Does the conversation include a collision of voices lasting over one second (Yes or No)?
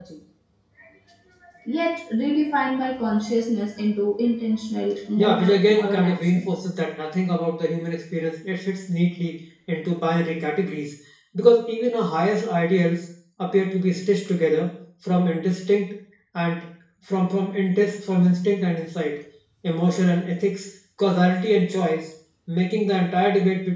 Yes